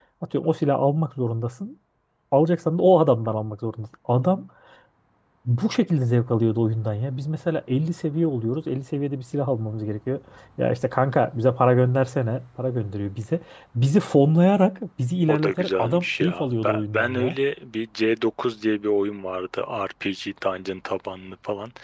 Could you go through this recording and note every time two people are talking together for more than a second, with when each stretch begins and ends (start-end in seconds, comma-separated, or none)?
15.3-17.4